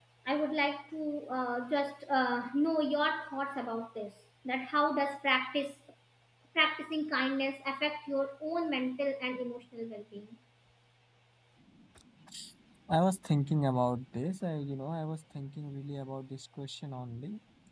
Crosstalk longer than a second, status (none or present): none